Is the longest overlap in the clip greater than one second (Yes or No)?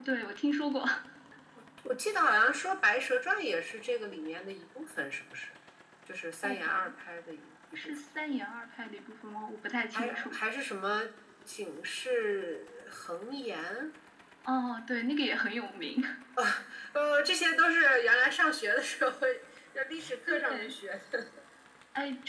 No